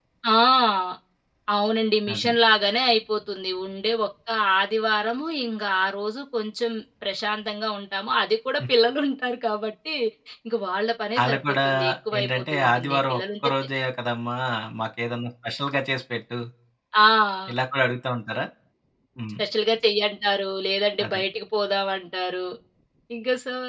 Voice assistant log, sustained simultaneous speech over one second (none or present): present